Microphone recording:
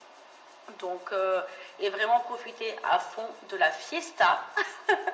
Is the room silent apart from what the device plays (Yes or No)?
Yes